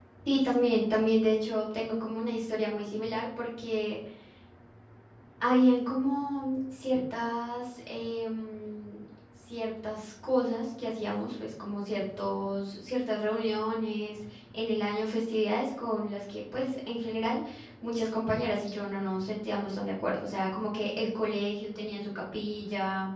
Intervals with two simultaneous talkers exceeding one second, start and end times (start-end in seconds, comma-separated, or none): none